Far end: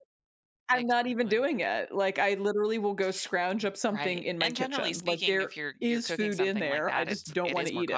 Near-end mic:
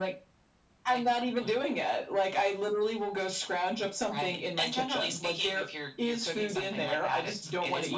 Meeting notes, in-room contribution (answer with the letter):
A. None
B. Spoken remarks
A